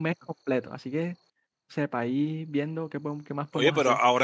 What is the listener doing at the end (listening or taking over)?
taking over